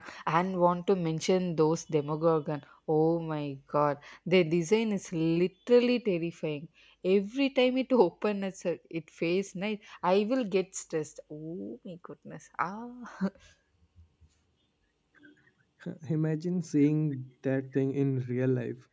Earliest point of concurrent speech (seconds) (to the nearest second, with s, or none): none